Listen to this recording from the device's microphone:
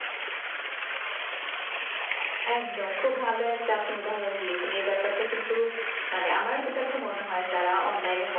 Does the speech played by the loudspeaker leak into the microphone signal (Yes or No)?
Yes